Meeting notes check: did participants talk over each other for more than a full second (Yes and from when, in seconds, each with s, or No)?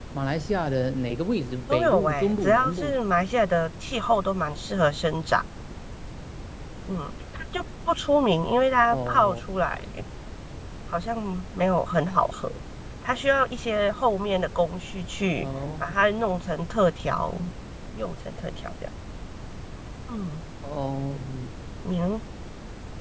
Yes, from 1.7 s